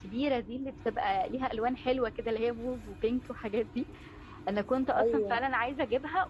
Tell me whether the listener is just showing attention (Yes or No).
Yes